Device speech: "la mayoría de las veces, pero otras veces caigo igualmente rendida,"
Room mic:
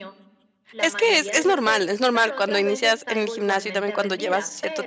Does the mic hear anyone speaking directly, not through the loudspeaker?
Yes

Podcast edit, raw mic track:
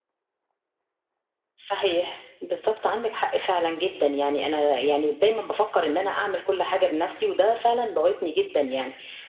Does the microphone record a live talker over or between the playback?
No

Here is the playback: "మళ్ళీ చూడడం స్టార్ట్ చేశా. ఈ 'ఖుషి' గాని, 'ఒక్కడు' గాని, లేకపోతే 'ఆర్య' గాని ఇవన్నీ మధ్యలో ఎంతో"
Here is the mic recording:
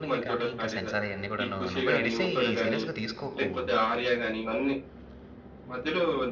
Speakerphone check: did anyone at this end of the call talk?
Yes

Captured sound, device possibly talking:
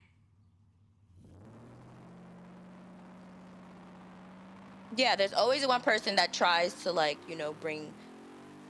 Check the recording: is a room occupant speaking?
Yes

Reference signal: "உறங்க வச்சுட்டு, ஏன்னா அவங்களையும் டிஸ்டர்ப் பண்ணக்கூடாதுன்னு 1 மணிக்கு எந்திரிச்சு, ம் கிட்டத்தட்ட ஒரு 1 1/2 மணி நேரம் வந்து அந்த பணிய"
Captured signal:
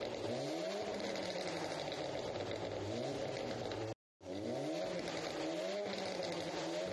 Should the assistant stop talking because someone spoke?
No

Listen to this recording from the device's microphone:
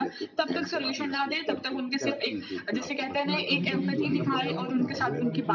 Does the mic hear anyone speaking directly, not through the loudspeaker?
Yes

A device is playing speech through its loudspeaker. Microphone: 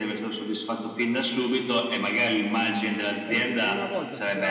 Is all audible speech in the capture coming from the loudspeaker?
No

